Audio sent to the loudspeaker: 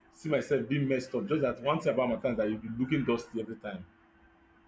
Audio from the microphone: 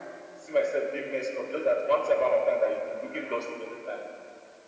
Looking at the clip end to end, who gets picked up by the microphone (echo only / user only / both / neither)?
echo only